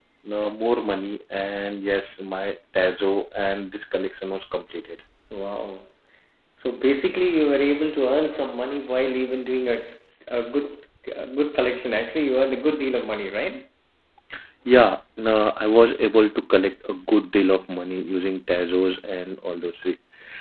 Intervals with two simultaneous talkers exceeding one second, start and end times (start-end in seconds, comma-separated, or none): none